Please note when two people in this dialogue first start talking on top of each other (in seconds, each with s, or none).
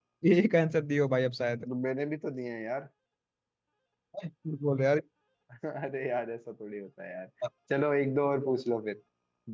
none